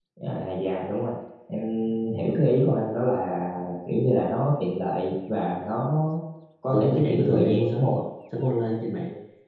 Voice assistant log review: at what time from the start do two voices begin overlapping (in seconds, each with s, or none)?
6.7 s